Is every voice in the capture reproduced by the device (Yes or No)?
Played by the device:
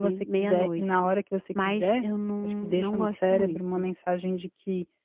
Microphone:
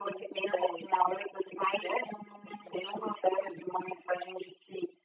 Yes